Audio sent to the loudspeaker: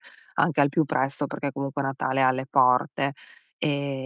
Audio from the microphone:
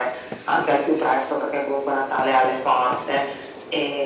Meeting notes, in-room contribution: none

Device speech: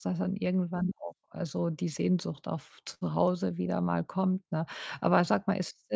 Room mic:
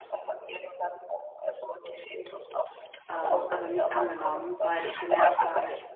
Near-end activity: present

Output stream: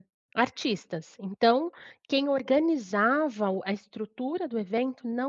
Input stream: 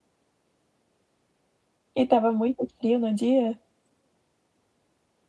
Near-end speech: present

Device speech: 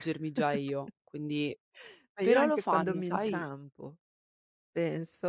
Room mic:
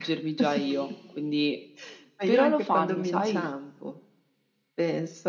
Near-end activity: present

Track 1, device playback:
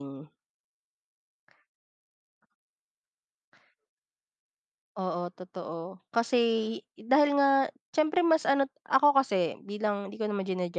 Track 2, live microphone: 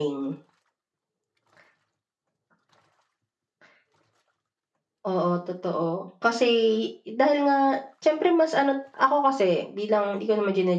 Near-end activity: none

